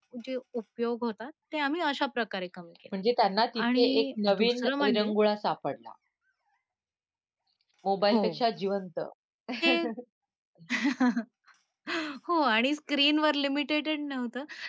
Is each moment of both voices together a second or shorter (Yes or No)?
No